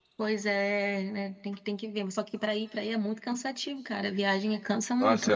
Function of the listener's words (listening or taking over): taking over